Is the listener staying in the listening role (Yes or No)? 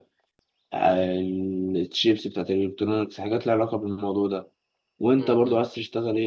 Yes